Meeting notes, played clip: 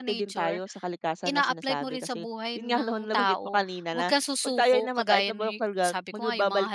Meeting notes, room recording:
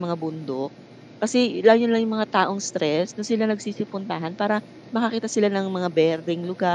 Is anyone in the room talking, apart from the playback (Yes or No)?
Yes